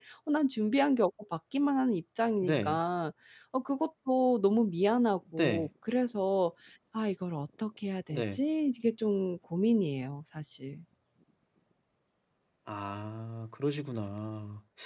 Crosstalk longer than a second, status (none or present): none